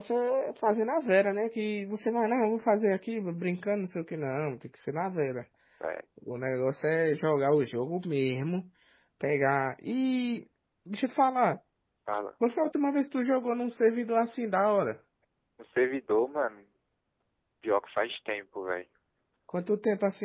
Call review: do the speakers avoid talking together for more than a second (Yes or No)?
Yes